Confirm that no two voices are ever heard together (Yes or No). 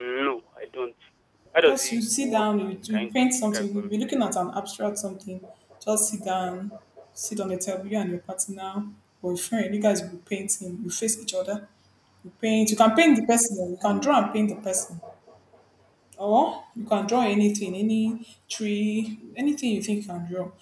No